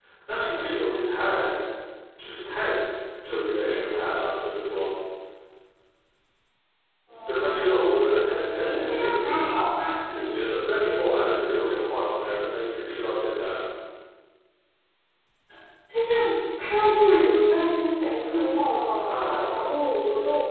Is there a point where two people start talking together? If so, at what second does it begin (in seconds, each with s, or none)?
7.3 s